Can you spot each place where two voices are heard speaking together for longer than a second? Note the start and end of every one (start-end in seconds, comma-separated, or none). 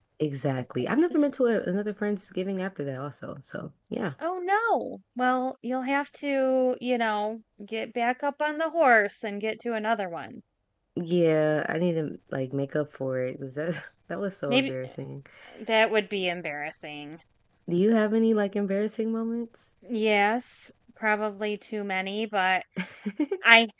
none